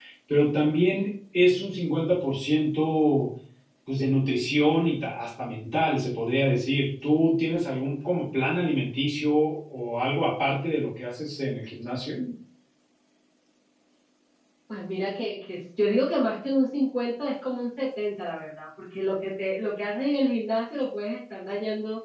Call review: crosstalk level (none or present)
none